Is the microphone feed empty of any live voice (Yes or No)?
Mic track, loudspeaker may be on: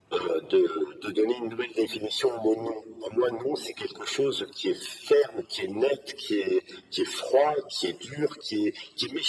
Yes